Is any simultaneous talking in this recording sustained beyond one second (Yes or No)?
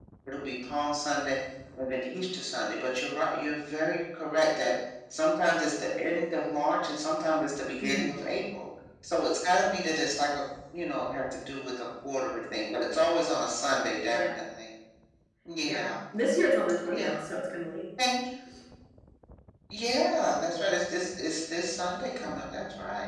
No